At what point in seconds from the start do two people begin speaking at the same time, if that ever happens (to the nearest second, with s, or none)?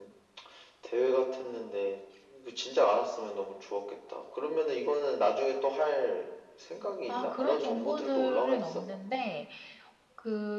7 s